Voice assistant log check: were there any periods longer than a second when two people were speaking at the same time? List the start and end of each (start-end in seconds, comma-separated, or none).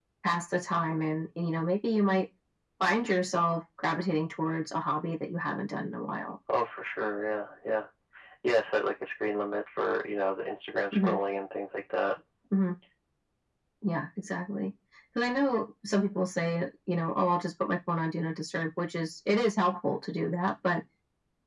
none